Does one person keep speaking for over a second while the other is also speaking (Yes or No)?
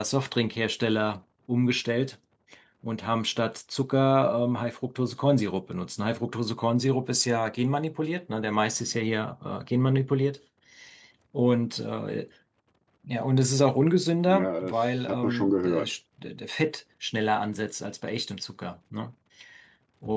Yes